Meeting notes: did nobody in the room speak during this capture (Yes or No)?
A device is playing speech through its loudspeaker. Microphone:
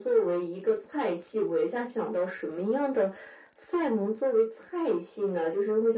Yes